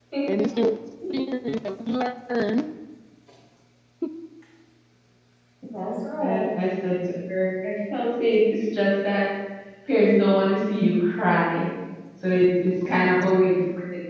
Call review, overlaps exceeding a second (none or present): present